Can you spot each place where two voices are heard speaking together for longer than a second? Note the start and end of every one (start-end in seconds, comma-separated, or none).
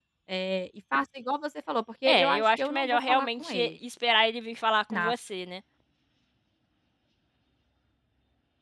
2.1-3.7